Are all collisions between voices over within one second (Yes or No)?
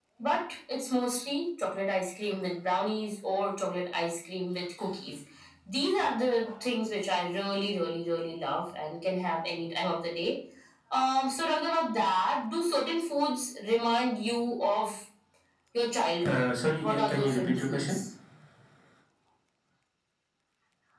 No